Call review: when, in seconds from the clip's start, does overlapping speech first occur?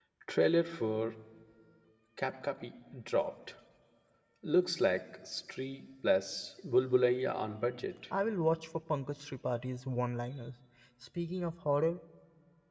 none

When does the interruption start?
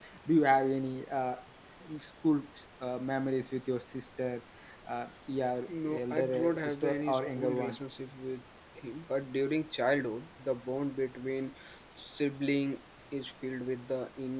5.7 s

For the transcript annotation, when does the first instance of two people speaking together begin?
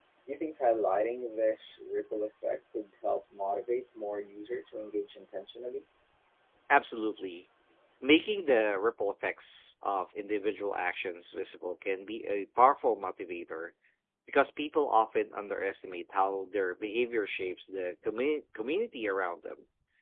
none

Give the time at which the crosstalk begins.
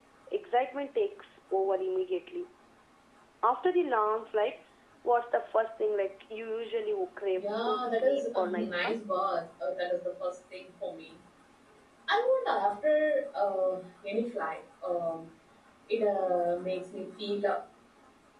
7.4 s

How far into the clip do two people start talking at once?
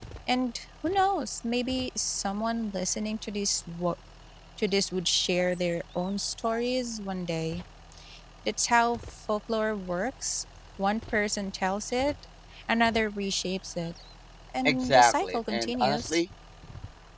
14.7 s

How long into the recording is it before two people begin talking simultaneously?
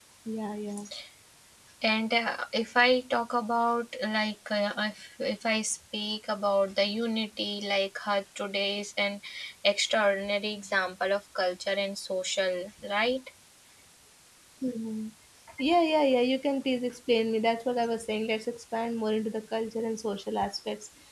none

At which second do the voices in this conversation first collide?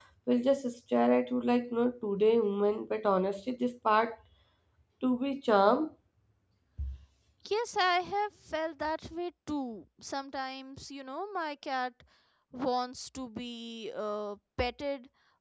none

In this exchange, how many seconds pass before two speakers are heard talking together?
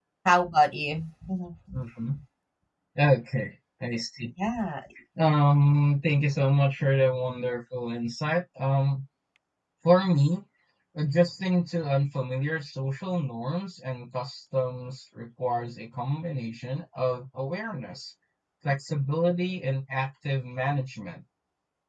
none

